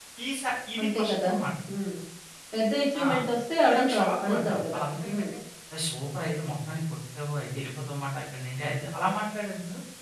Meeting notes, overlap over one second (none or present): present